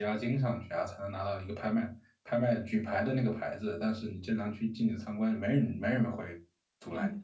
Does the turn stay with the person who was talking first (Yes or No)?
No